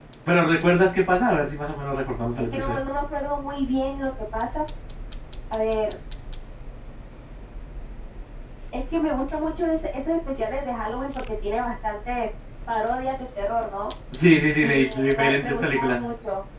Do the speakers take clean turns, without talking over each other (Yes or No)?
No